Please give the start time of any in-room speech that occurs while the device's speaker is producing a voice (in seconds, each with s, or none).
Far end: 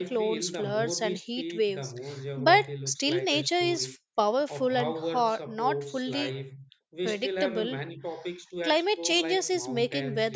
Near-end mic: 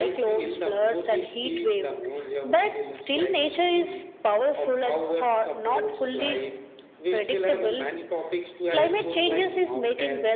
8.6 s